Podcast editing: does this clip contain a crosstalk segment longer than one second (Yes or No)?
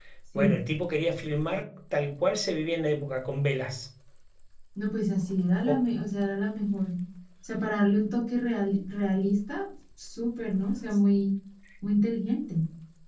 No